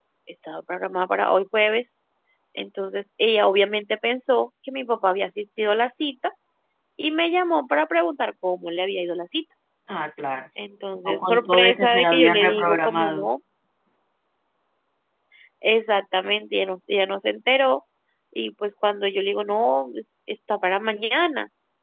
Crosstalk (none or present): present